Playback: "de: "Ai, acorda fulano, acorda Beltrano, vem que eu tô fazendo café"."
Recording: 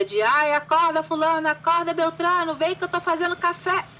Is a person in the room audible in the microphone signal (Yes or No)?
No